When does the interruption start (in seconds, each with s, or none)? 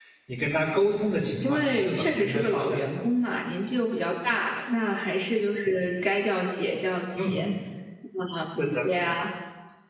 1.4 s